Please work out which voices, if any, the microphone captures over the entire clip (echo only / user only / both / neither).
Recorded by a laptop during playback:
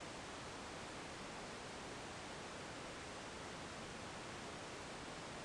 neither